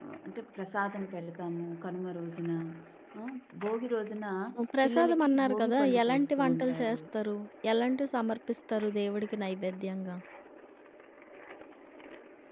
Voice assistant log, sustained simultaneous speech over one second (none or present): present